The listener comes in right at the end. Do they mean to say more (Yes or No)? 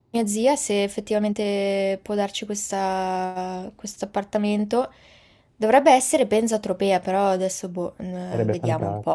Yes